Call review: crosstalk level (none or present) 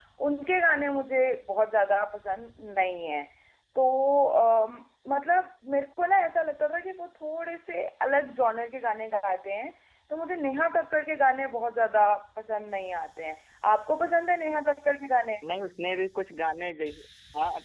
none